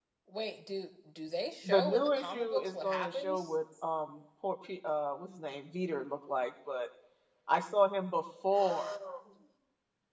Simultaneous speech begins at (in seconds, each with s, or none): 1.6 s